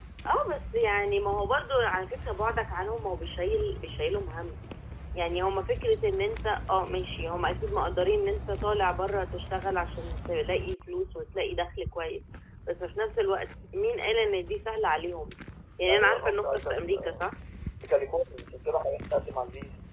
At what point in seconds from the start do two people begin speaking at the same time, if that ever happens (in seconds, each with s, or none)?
15.9 s